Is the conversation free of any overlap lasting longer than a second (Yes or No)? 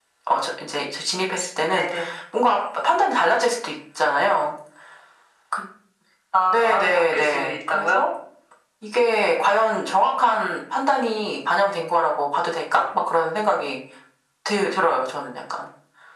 No